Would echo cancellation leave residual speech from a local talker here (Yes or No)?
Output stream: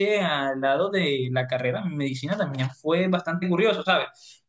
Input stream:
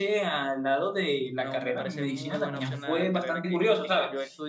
Yes